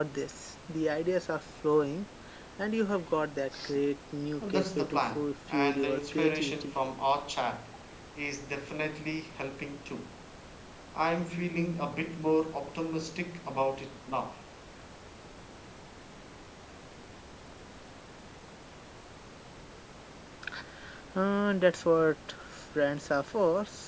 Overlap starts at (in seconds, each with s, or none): 4.4 s